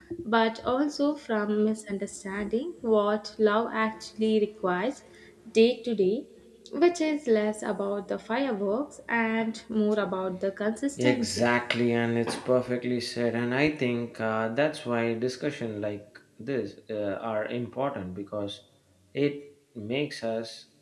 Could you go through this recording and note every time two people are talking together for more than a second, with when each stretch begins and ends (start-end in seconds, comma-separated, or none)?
none